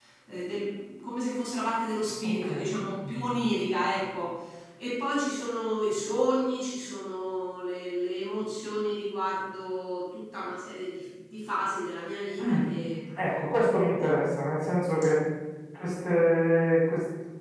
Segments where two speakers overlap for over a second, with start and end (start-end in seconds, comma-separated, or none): none